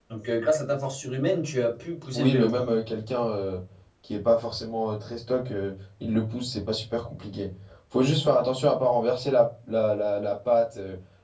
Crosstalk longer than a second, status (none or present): none